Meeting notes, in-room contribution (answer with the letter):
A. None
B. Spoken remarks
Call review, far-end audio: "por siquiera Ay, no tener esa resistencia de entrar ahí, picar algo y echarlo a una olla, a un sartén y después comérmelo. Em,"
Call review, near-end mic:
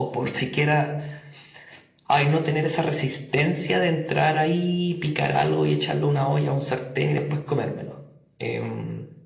A